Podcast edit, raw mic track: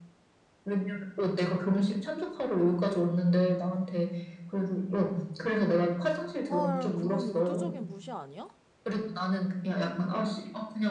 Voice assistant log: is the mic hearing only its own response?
No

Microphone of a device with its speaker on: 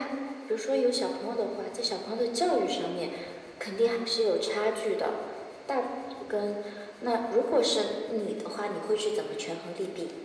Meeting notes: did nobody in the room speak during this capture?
Yes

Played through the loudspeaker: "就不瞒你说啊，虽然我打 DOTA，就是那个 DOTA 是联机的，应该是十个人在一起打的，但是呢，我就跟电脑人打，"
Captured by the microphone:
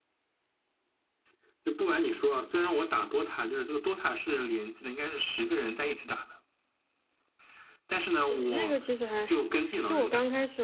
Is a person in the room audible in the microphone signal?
Yes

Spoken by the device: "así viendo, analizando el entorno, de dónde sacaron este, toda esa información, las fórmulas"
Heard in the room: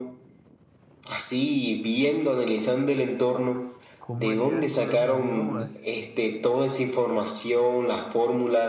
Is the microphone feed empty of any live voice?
No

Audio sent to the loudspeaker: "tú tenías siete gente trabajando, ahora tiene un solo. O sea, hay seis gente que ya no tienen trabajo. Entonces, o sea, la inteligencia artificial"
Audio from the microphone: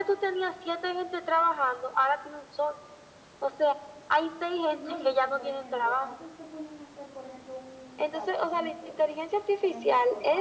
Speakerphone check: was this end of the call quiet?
No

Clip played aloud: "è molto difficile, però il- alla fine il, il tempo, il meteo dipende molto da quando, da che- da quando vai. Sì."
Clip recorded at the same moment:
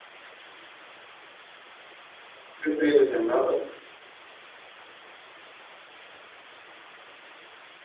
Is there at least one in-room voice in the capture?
Yes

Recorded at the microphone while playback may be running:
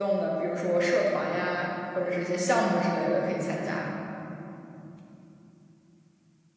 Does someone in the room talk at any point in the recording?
Yes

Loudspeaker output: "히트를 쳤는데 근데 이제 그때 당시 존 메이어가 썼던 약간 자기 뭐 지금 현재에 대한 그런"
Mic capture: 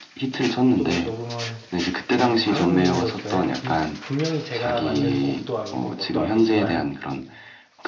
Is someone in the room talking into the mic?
Yes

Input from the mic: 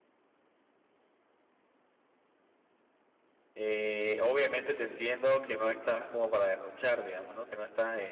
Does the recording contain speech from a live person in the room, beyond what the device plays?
Yes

